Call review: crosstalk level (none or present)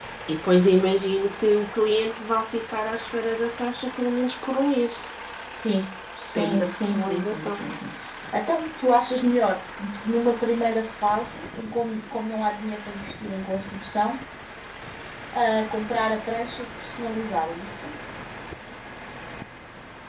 present